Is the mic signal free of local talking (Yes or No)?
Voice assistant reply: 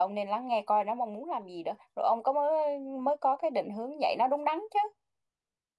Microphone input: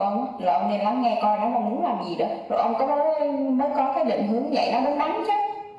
Yes